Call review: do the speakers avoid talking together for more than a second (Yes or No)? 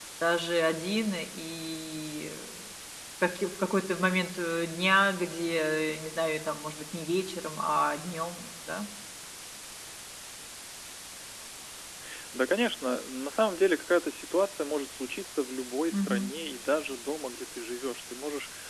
Yes